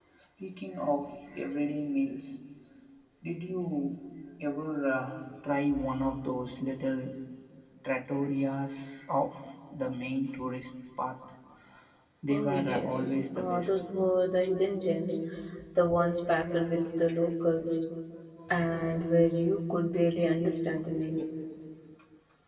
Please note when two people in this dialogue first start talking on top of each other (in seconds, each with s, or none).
12.3 s